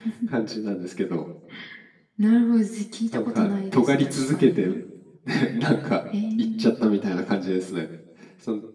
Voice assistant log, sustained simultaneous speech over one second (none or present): present